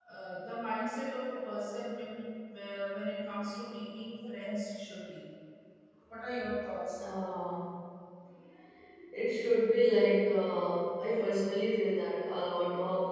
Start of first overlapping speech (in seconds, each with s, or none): none